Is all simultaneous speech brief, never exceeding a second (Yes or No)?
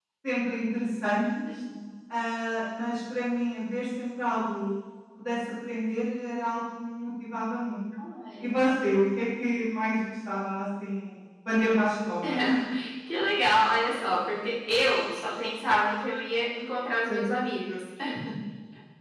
Yes